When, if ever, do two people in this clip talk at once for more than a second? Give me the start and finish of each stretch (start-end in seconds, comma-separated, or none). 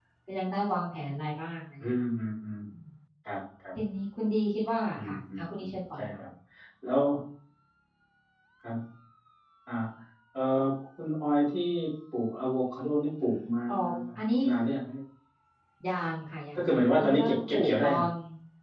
4.9-6.2, 16.6-18.0